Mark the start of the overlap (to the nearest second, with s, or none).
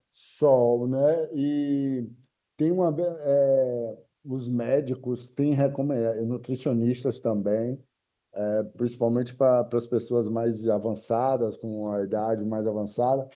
none